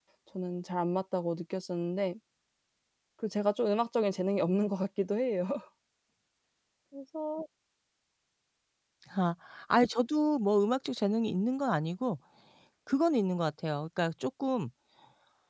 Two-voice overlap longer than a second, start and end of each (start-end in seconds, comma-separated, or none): none